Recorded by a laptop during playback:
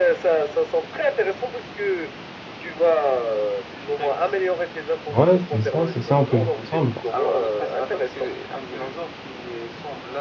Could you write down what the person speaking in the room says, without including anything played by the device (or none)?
Ouais, c'est ça, c'est ça, on peut jouer ensemble.